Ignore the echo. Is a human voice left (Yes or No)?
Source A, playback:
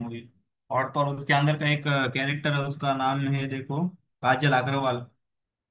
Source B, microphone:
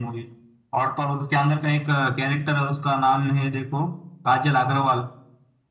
No